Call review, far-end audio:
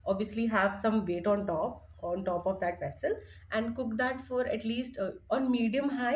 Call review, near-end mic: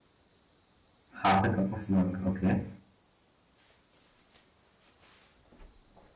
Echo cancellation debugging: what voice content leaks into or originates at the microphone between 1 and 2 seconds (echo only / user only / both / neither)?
user only